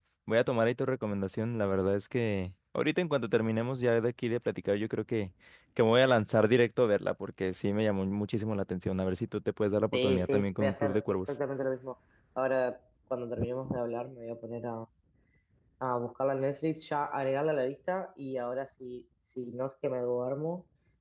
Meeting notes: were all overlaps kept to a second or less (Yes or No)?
No